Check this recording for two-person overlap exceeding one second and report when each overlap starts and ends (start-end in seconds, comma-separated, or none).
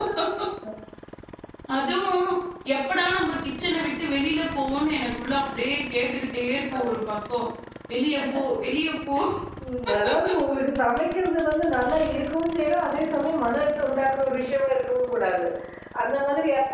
none